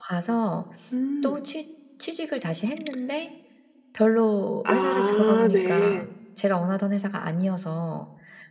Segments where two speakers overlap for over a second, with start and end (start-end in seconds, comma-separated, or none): 4.6-6.0